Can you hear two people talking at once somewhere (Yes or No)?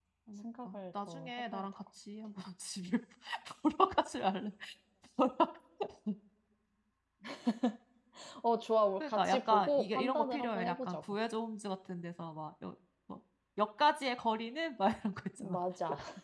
Yes